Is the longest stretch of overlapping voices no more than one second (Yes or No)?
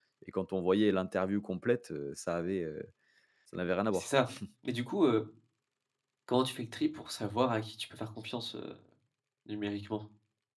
Yes